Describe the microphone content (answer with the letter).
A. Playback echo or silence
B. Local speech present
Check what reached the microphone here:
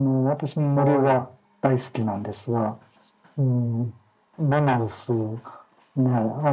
B